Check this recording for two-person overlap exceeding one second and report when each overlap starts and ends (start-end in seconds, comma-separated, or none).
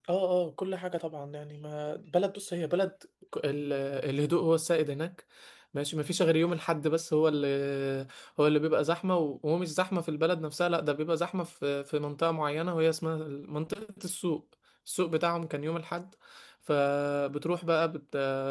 none